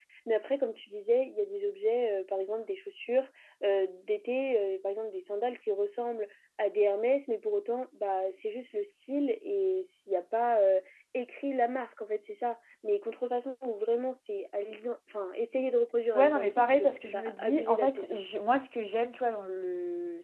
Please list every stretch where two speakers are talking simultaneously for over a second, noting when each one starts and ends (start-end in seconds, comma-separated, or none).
16.1-18.2